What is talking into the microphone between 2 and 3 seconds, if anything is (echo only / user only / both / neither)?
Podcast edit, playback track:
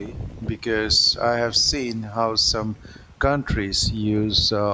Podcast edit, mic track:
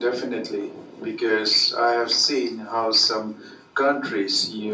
echo only